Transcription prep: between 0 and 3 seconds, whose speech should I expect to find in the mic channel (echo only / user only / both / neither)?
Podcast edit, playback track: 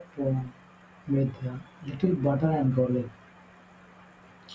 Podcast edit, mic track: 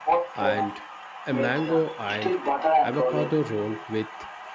both